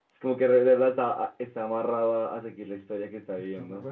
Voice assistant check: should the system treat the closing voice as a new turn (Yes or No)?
Yes